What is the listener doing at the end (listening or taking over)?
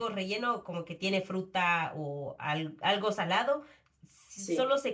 listening